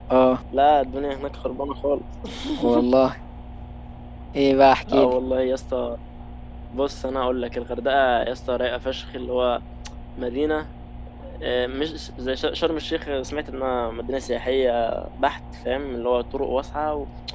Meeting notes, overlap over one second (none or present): none